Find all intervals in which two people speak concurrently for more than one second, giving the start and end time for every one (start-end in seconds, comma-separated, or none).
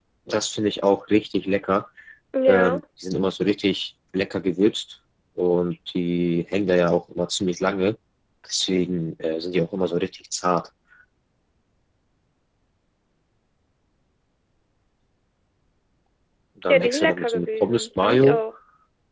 16.7-18.4